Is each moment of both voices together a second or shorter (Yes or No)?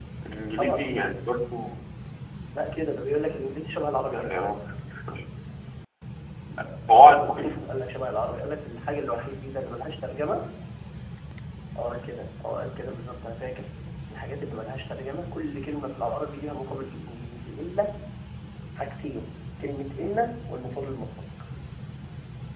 Yes